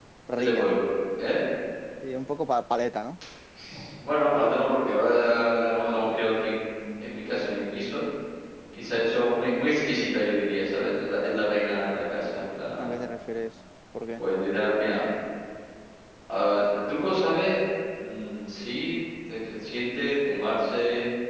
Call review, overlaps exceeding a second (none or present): none